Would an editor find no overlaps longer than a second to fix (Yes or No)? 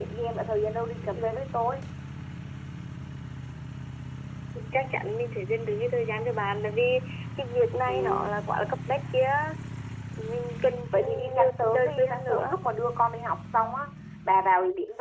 No